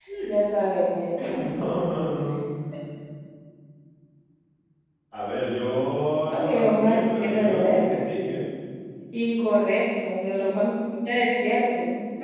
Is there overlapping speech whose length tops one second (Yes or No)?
Yes